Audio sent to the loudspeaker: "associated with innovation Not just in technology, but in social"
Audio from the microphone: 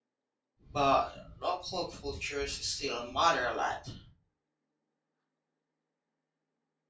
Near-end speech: present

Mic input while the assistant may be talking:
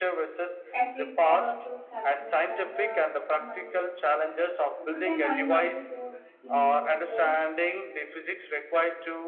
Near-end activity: present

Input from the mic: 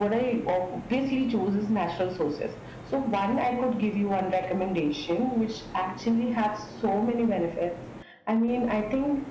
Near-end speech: none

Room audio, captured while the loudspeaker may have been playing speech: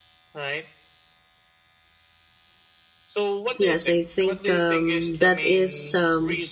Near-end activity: present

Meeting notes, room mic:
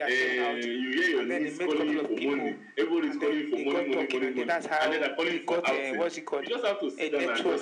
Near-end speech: none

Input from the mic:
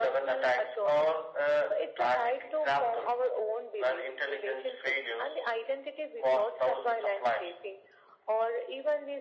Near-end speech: none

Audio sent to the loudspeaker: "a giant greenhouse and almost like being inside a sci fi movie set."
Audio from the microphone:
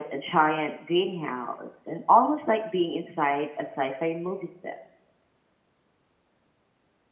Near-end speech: none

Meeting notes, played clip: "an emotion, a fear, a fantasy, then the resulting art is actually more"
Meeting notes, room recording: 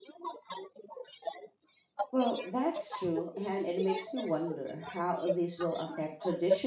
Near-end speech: present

